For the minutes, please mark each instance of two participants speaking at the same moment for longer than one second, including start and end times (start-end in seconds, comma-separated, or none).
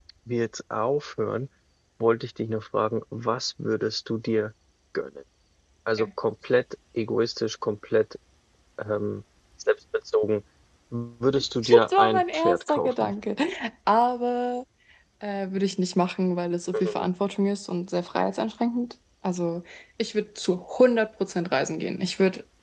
11.6-13.1